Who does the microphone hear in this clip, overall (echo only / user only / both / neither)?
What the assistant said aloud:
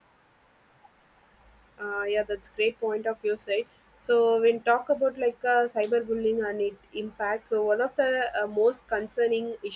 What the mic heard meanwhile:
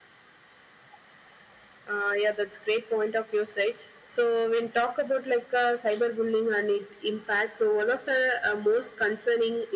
echo only